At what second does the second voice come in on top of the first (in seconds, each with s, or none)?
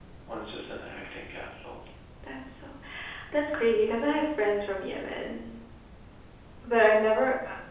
none